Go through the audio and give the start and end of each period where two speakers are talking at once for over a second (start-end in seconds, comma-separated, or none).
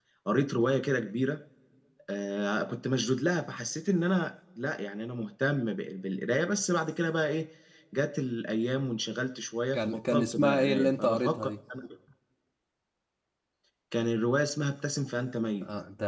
9.7-11.5